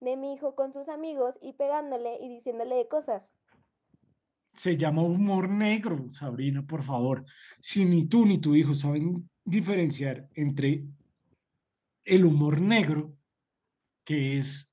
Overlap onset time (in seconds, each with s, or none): none